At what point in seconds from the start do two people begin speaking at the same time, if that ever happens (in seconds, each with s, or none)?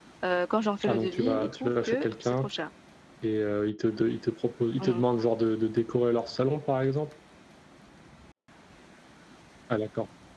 0.8 s